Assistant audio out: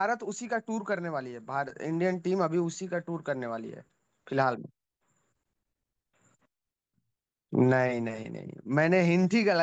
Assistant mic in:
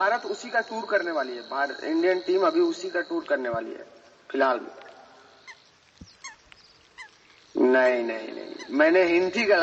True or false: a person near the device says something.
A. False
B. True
A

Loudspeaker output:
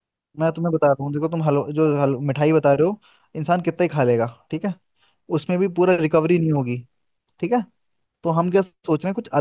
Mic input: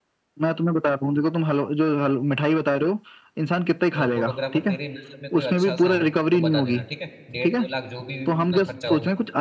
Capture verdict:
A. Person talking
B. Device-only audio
A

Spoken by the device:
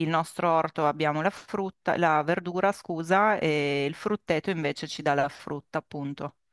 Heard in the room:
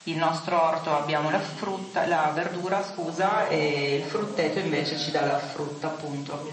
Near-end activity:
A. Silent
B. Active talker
B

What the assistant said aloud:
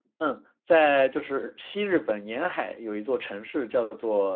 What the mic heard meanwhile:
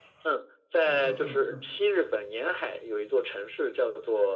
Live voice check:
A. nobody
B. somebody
B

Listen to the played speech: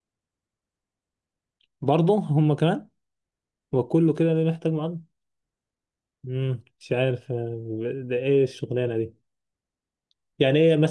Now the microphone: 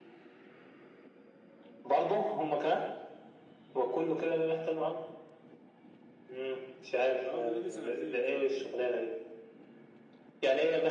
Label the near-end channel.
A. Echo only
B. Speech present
B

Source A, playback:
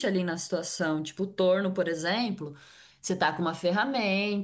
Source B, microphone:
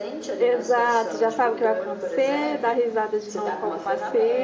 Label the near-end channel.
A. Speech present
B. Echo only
A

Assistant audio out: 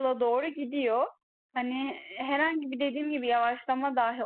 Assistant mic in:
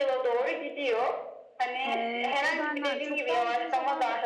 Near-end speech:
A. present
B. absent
A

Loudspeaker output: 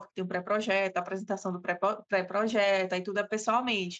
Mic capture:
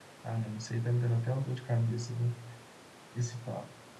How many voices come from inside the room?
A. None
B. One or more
B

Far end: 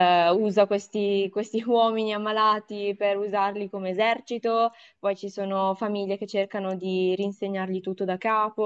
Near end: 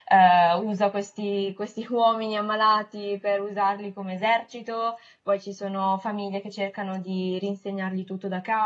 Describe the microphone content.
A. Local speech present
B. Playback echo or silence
B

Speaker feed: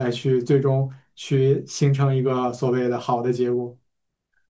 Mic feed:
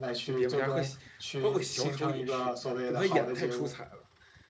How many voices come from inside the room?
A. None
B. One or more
B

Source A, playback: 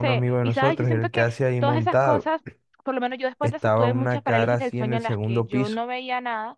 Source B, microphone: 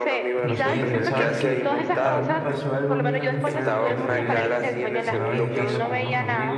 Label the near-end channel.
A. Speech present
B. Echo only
A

